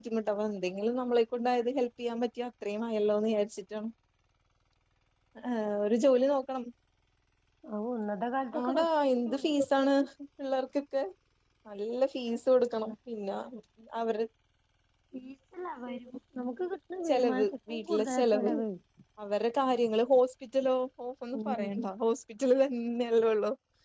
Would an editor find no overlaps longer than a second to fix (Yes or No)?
No